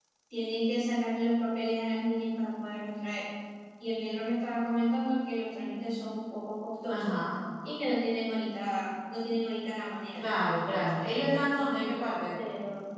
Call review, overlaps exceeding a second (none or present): none